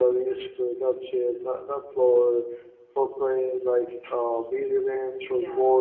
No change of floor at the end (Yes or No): No